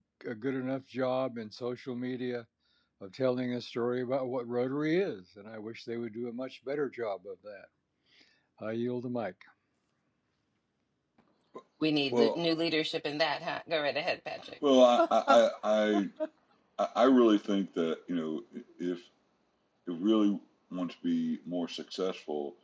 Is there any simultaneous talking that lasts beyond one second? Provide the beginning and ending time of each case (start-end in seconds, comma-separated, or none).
none